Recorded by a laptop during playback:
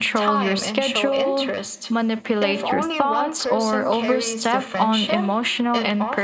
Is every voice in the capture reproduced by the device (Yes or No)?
No